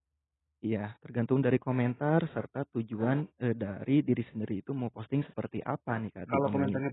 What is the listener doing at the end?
taking over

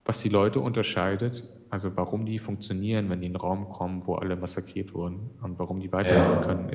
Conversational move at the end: listening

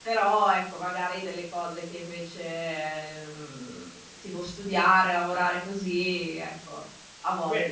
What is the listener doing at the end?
taking over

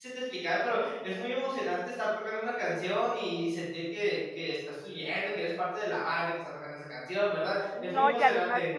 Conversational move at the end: taking over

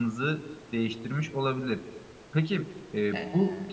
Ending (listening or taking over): listening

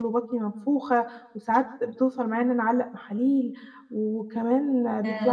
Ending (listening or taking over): listening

